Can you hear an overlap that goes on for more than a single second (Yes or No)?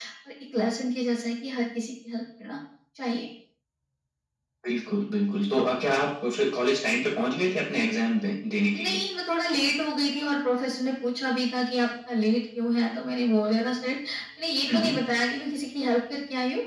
No